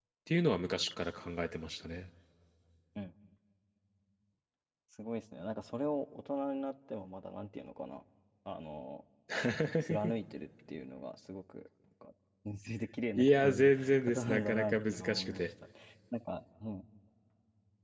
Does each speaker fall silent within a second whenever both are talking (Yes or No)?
No